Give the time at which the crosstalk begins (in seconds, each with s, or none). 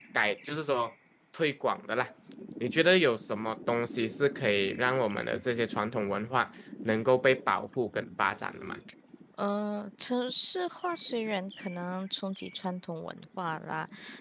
none